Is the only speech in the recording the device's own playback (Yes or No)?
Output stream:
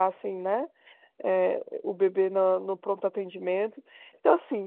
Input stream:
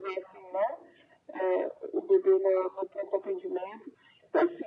Yes